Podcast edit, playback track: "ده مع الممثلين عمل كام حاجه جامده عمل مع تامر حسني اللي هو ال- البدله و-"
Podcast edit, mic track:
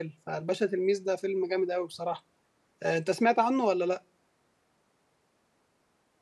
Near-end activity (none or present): present